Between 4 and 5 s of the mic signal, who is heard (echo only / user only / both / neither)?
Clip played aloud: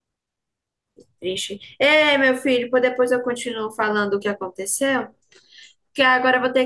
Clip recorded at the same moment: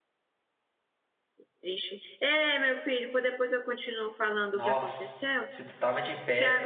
both